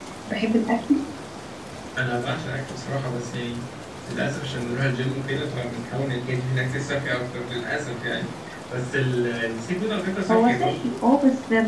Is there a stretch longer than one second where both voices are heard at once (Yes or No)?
No